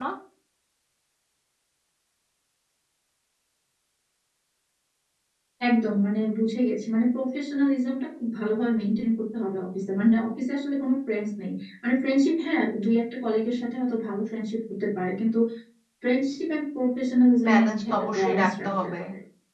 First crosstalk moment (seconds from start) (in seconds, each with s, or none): 17.4 s